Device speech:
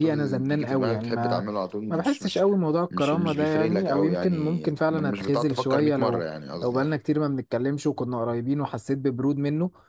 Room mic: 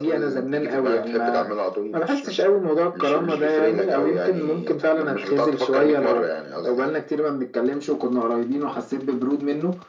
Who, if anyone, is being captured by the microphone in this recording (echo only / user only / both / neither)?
echo only